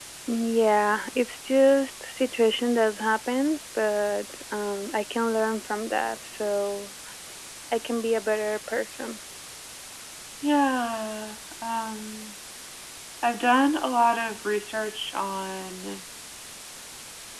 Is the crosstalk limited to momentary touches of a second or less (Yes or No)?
Yes